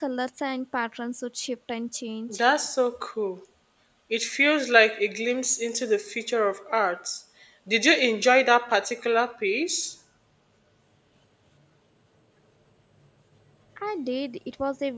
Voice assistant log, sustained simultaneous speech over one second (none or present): none